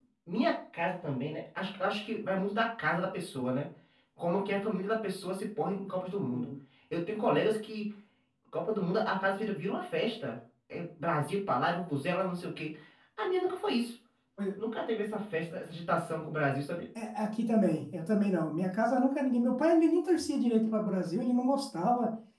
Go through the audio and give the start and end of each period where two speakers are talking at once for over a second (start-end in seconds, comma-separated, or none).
none